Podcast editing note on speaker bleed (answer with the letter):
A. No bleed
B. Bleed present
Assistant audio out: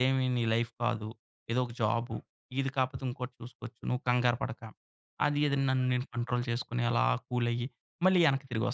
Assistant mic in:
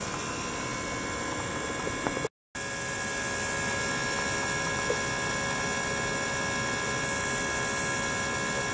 A